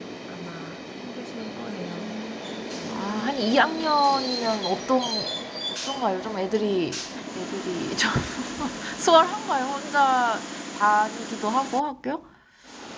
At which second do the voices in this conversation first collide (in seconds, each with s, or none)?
none